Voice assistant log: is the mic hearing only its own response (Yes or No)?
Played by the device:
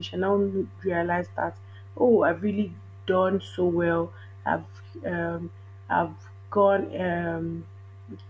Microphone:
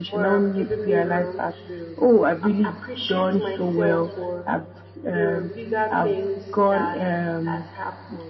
No